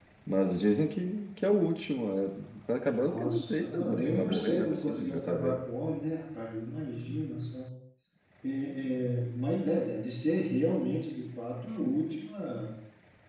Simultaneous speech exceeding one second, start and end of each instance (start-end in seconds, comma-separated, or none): 2.8-5.6